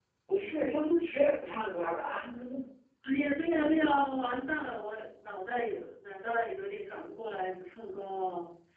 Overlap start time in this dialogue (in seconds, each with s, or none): none